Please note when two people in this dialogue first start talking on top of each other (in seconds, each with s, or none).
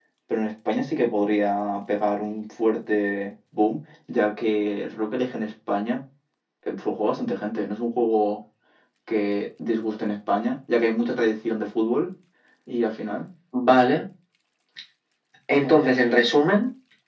none